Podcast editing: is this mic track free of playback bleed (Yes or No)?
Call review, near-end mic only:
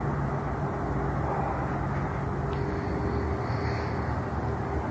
Yes